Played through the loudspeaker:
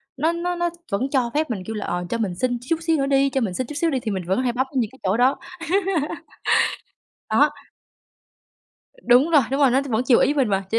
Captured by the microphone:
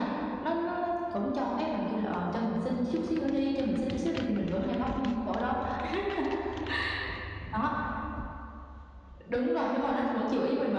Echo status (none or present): present